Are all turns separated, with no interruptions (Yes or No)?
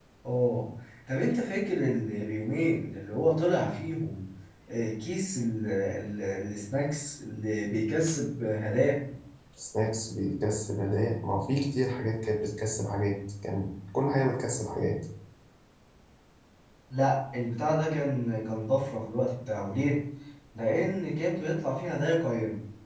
Yes